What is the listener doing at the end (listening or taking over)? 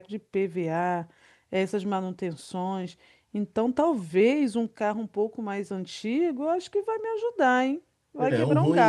taking over